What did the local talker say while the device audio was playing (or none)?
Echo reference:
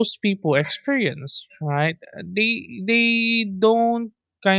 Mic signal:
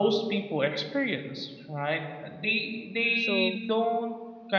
so